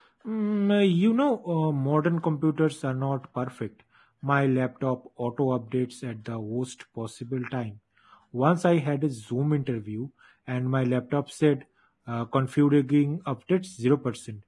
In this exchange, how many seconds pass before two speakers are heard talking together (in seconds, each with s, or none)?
none